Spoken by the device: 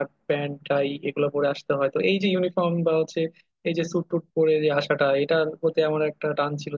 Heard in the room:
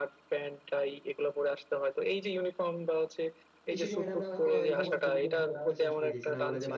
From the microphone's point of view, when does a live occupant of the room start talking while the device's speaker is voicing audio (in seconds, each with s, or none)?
3.7 s